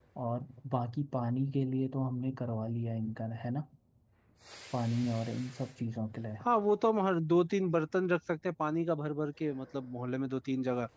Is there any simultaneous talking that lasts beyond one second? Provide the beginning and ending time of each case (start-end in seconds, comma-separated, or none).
none